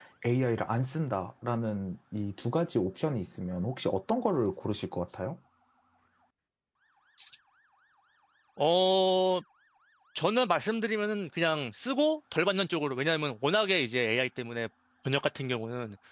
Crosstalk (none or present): none